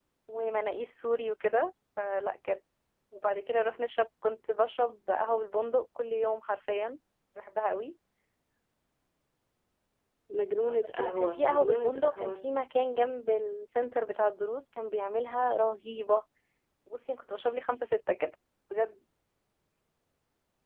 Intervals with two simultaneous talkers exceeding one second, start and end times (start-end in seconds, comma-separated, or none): 11.0-12.5